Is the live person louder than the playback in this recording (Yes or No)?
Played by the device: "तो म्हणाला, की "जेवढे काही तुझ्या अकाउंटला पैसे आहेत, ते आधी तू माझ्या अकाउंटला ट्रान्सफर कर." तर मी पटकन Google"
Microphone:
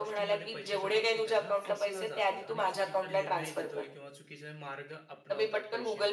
No